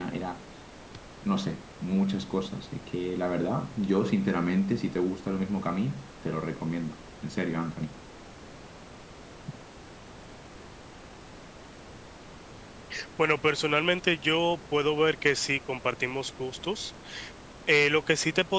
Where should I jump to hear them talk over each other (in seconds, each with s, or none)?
none